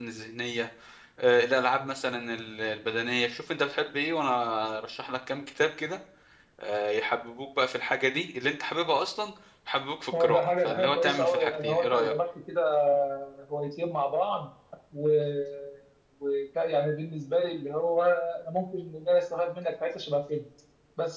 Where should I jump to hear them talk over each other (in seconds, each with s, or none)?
10.1 s